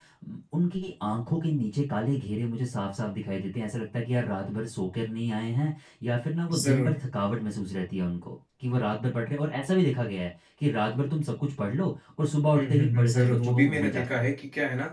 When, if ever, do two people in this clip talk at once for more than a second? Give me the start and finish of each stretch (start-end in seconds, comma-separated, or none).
12.6-14.2